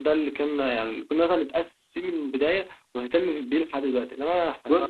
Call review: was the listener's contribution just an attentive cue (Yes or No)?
No